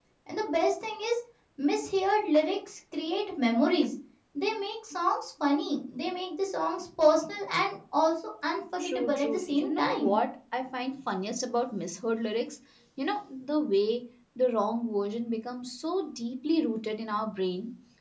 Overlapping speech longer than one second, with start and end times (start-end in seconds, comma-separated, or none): 8.8-10.2